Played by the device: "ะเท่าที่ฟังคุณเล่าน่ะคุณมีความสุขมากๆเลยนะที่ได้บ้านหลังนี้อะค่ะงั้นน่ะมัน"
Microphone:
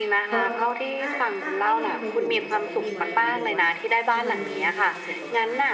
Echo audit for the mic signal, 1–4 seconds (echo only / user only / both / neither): both